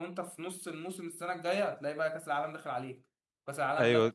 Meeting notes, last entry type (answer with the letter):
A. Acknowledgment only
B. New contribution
B